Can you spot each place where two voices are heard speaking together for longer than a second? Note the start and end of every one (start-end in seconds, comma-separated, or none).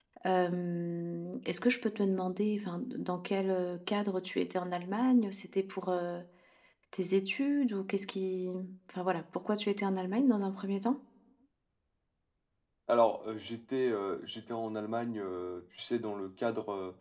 none